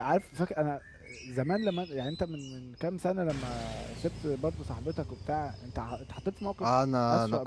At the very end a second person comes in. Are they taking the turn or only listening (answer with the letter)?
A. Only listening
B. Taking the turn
B